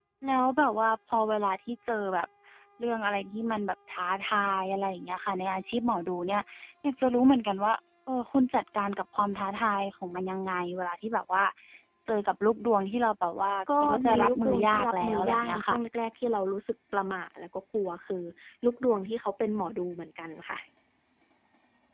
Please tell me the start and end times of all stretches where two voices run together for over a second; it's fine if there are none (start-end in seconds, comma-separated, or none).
13.8-15.8